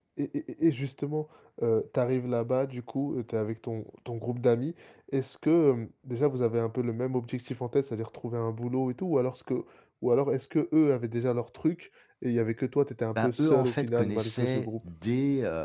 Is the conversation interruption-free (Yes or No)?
No